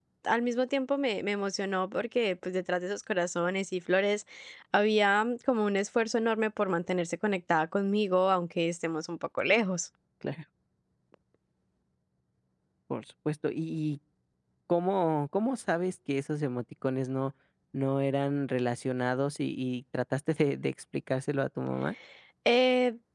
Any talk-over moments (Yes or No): No